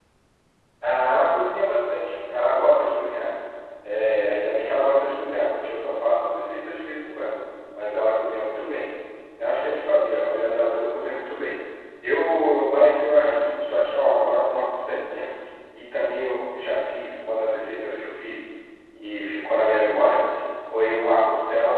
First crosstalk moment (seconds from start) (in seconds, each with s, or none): none